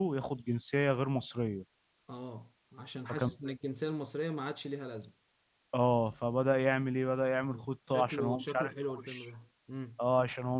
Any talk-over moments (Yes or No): Yes